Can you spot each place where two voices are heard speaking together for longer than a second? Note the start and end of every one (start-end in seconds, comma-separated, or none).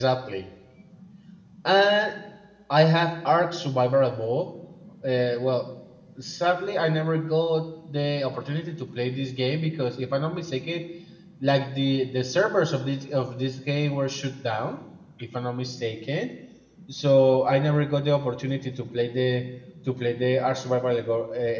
none